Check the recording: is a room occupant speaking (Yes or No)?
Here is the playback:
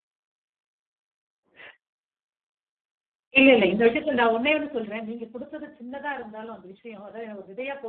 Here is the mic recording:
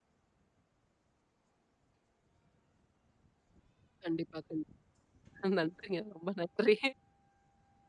Yes